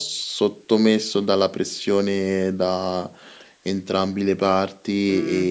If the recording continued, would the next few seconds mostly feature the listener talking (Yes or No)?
Yes